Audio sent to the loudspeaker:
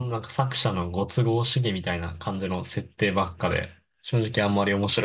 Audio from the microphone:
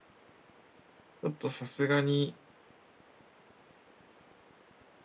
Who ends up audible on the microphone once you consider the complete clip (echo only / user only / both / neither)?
user only